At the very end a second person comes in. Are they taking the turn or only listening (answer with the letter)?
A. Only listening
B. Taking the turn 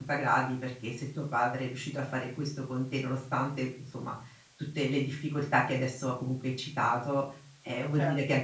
A